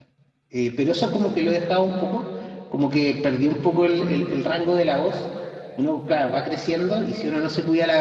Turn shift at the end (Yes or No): No